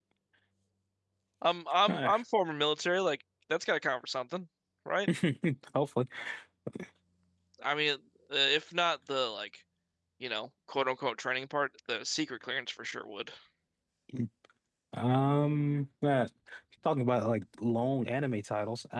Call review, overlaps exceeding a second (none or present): none